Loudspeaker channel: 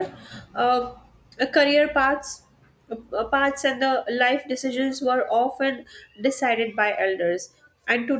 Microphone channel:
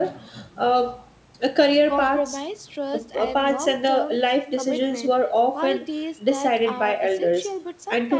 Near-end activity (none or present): present